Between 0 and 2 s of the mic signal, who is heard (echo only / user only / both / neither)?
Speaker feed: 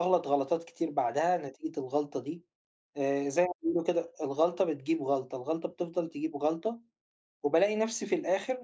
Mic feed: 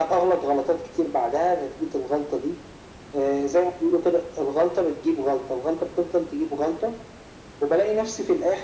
echo only